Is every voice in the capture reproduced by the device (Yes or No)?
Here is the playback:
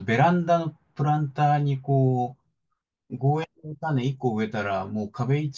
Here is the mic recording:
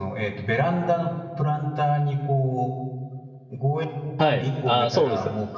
No